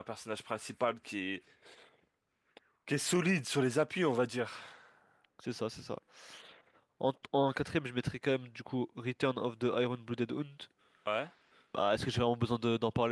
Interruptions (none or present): none